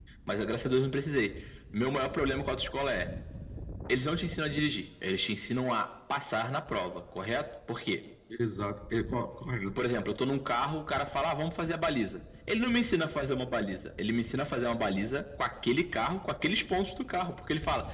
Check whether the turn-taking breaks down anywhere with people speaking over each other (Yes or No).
No